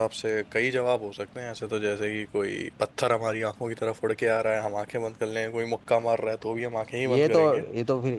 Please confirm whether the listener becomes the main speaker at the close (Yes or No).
Yes